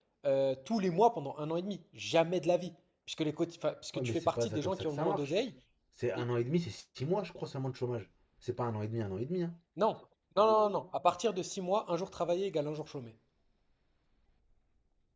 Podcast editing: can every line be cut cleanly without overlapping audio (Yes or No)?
No